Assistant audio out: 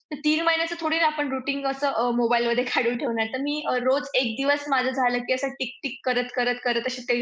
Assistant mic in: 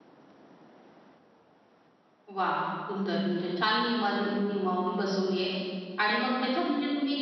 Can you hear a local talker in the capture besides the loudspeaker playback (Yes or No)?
Yes